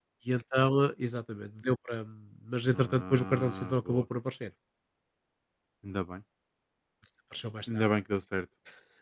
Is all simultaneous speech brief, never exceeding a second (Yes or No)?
No